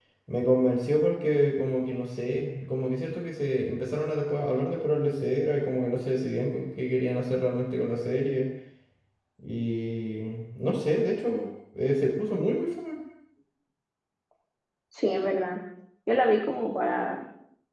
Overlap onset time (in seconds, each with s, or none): none